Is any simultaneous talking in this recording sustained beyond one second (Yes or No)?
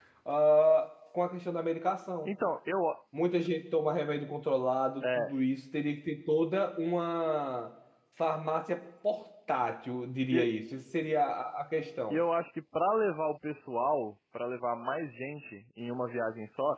No